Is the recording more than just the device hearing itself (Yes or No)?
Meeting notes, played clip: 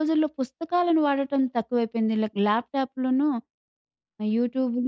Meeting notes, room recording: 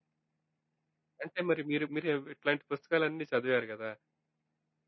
Yes